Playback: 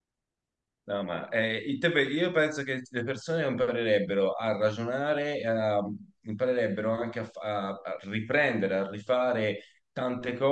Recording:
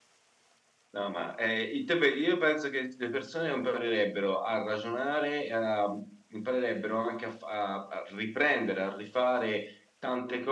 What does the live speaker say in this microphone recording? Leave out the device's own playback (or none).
none